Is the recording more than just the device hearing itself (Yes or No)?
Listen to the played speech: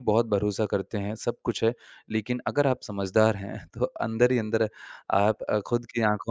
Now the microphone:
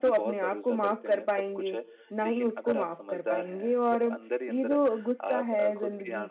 Yes